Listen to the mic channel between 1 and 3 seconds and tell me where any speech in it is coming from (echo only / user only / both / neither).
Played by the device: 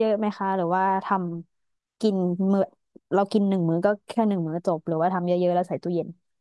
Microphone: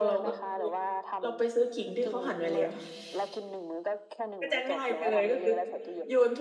both